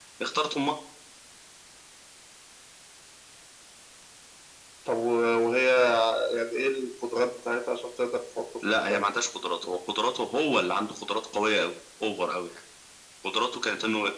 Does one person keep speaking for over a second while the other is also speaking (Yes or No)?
No